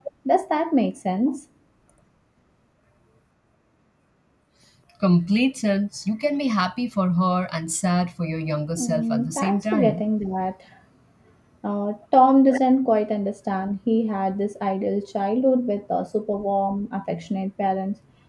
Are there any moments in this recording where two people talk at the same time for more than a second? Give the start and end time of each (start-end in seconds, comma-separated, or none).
8.8-10.0